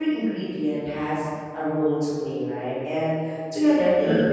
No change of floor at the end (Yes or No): Yes